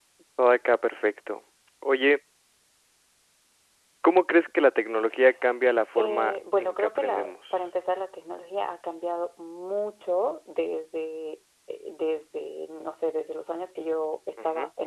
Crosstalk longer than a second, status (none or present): present